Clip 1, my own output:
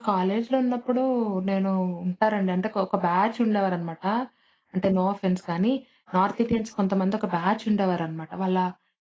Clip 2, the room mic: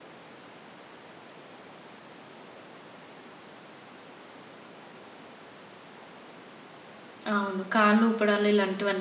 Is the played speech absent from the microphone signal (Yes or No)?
Yes